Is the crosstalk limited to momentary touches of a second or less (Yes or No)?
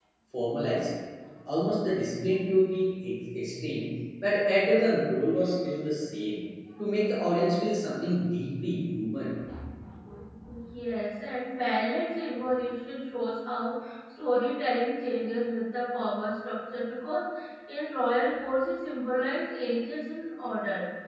Yes